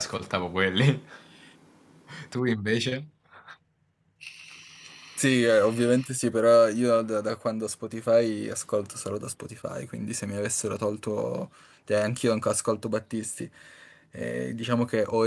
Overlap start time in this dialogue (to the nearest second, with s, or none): none